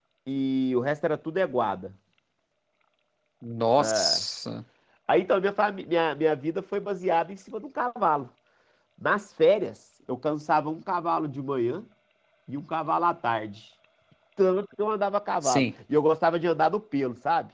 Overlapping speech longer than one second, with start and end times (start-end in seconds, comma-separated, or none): none